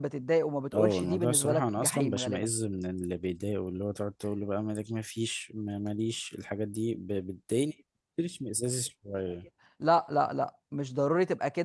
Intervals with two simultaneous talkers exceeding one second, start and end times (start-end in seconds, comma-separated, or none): 0.7-2.5